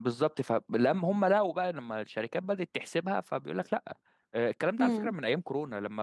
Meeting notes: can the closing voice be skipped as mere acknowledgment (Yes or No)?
Yes